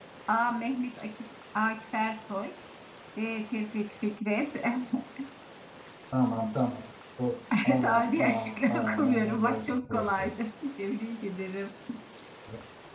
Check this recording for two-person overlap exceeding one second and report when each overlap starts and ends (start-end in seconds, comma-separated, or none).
7.7-10.3